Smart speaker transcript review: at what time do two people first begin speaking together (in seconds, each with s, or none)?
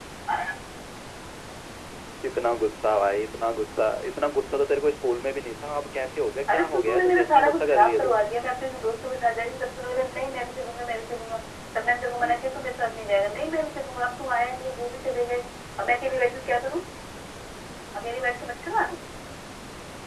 6.5 s